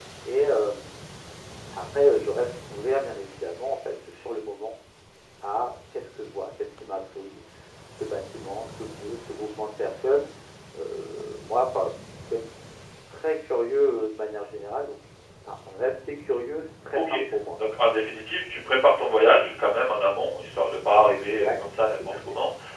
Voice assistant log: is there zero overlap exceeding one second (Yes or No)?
Yes